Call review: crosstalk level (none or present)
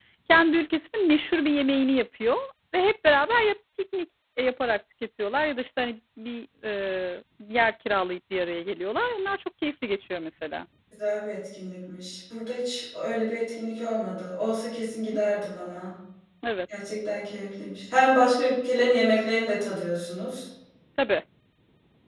none